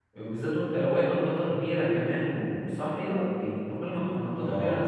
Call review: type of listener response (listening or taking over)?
taking over